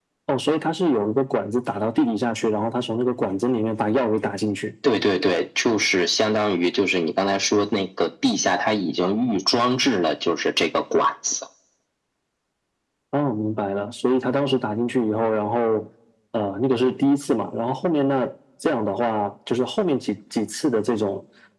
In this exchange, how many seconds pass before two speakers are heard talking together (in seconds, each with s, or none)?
none